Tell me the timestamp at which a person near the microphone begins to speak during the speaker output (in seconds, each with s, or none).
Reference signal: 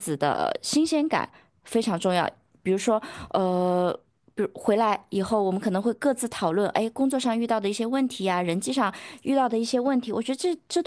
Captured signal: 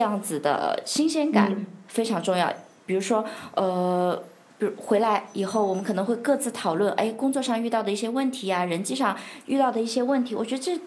1.3 s